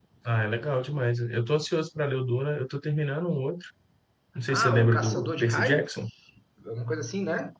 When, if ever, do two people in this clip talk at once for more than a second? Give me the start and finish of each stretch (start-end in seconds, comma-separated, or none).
4.5-5.8